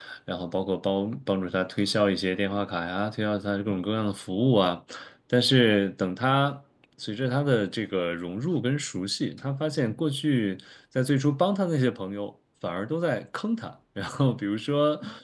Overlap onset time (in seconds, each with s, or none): none